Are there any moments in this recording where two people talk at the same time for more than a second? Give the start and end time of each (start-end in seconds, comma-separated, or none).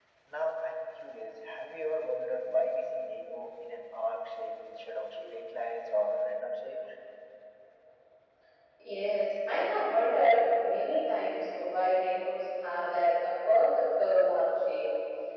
none